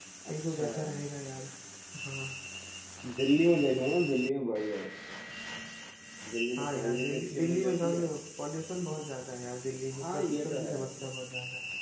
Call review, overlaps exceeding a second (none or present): present